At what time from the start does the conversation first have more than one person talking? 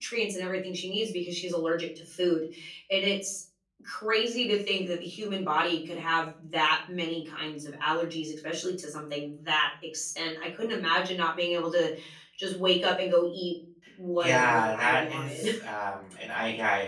14.2 s

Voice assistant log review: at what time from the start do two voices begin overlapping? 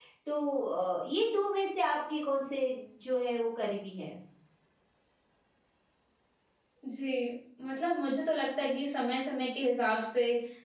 none

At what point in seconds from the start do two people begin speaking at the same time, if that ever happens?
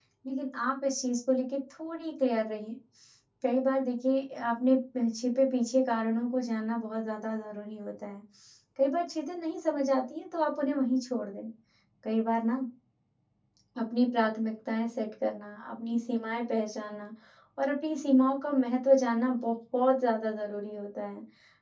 none

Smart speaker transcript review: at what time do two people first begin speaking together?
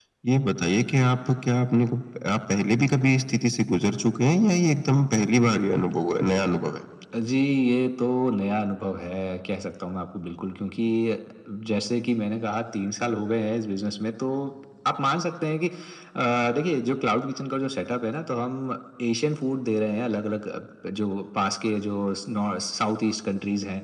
none

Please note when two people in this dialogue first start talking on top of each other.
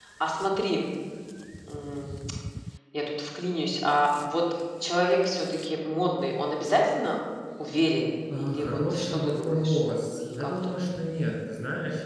8.4 s

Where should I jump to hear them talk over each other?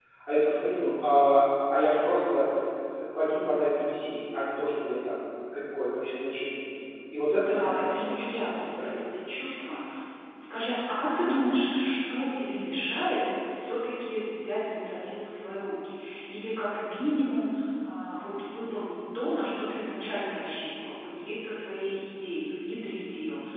7.5 s

